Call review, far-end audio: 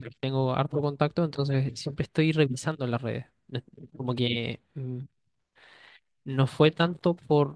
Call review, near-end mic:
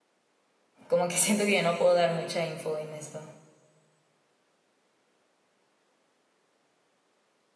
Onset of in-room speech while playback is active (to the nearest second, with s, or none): 1 s